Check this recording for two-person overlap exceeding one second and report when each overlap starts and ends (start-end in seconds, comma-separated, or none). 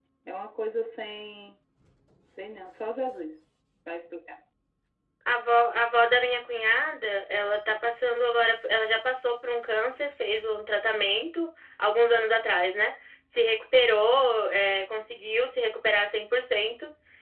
none